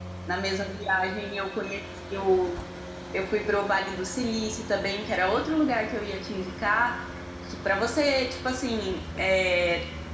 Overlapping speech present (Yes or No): No